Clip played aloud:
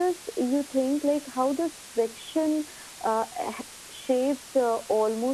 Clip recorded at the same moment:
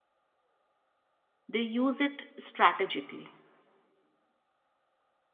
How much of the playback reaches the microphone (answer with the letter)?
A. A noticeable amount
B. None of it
B